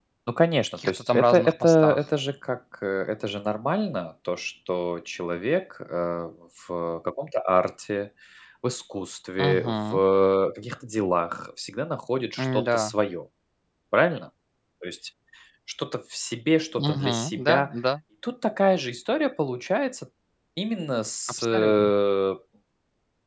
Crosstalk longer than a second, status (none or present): present